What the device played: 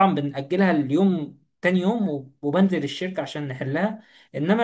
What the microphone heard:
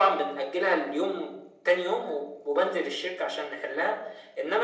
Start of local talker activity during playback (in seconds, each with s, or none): none